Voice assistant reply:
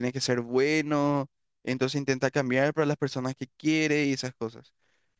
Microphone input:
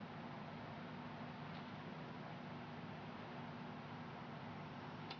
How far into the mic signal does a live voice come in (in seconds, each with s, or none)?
none